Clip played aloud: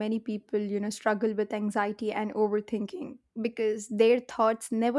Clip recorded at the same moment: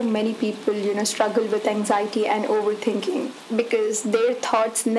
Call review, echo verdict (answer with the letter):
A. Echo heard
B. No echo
A